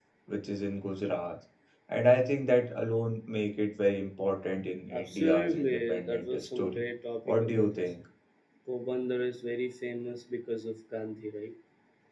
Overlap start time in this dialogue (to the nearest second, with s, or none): 5 s